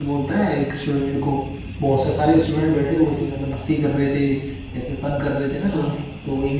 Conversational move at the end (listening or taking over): listening